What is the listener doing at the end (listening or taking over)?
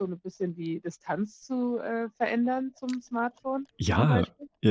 taking over